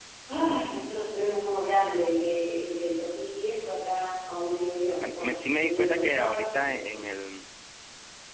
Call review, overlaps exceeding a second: present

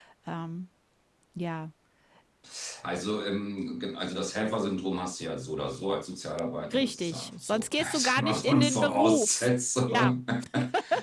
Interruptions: present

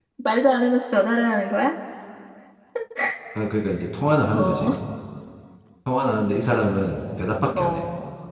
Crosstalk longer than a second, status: none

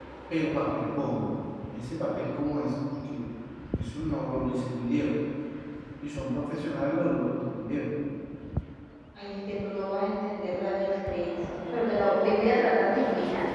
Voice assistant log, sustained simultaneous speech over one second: none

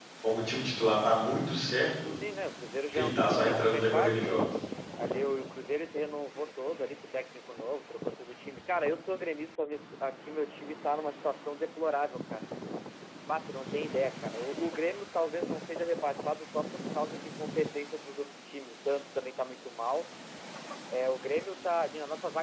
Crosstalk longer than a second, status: present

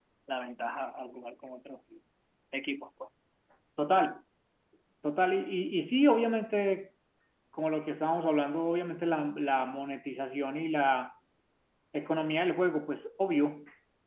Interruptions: none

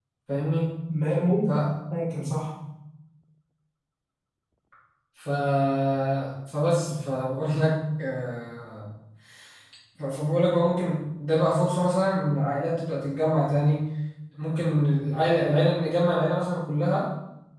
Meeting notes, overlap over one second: none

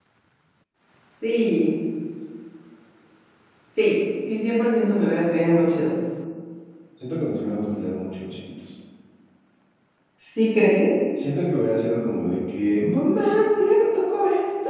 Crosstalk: none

